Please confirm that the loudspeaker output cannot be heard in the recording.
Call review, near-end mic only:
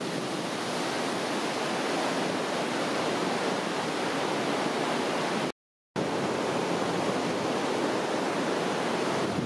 Yes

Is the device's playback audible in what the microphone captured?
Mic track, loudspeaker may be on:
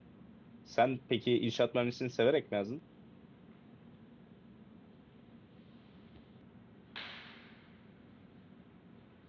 No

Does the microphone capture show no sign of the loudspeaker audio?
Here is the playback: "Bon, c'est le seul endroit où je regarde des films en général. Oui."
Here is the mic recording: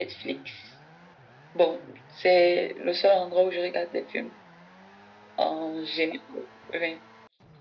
No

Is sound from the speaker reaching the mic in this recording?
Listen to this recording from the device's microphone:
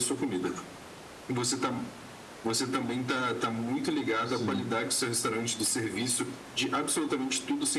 Yes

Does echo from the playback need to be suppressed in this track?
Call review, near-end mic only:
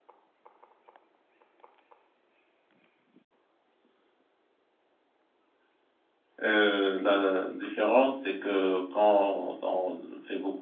No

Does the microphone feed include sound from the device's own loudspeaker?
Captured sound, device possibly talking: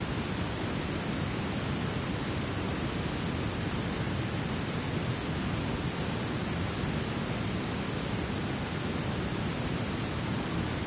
No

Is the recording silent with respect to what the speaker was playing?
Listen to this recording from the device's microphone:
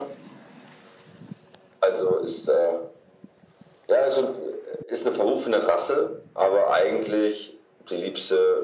No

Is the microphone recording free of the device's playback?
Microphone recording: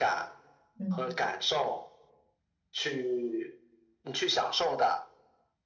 No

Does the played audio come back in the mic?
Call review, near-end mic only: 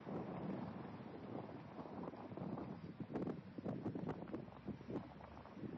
No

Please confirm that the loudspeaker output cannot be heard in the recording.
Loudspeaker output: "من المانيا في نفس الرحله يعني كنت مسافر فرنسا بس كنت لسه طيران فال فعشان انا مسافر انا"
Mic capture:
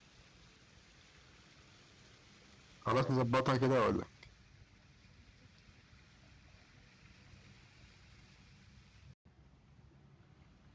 Yes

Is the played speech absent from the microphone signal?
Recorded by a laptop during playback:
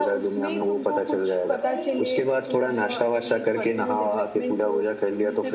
No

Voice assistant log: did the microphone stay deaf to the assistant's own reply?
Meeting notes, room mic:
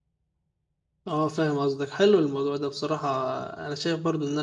Yes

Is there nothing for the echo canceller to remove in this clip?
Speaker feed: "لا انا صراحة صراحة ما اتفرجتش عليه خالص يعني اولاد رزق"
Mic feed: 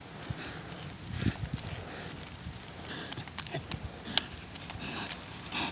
Yes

